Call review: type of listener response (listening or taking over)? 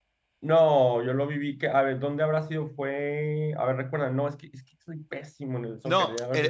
taking over